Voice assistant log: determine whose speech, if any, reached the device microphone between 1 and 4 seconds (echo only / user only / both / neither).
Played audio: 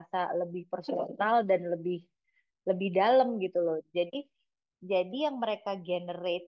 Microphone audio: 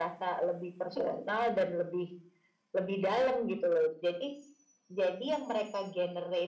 echo only